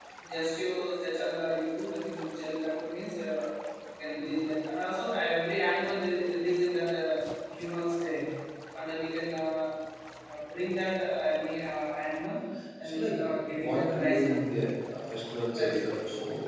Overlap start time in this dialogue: 12.8 s

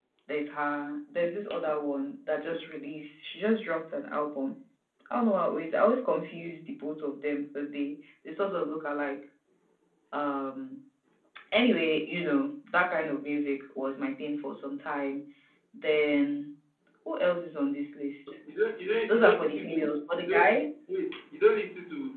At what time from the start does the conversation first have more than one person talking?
19.1 s

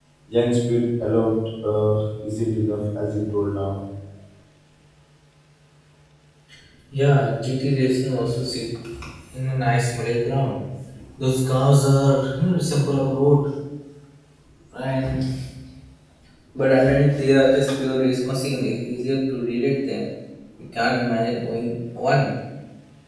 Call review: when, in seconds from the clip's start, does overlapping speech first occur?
none

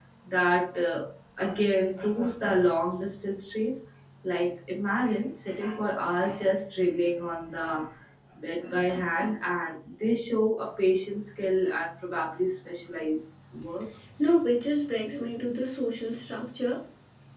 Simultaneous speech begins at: none

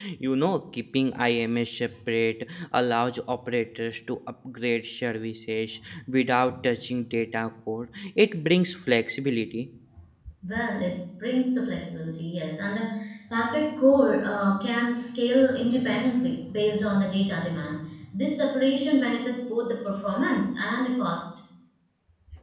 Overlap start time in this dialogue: none

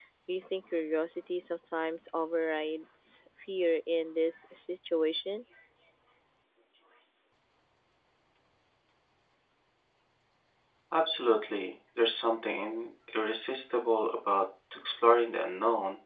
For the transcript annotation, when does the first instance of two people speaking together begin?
none

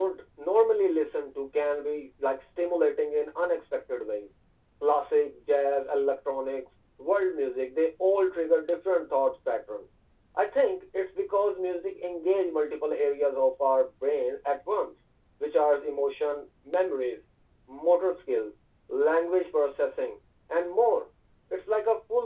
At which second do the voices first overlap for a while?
none

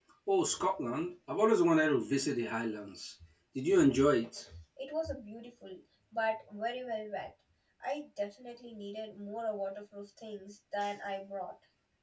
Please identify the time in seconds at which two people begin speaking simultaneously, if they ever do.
none

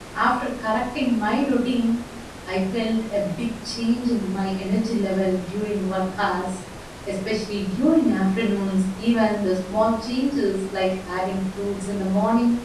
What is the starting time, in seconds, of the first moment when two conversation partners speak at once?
none

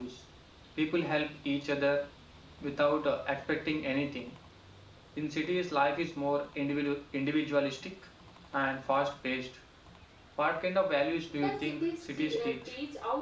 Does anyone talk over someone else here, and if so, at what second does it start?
11.3 s

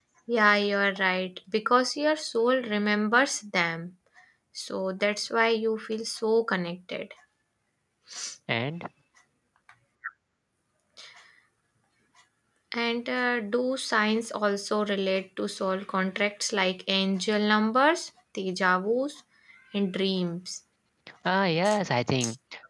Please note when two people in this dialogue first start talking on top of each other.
none

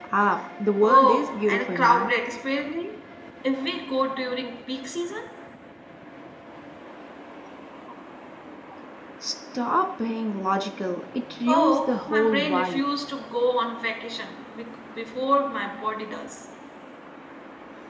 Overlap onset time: 0.8 s

